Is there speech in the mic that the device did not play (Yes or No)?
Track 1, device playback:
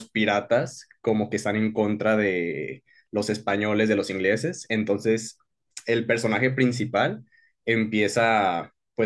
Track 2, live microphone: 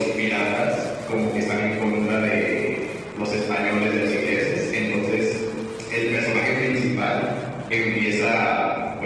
No